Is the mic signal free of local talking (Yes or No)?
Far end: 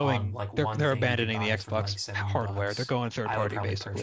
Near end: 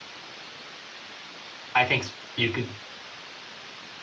No